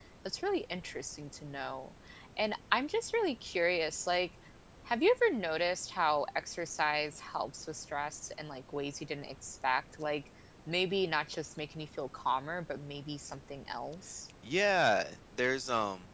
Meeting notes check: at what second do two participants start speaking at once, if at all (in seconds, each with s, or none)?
none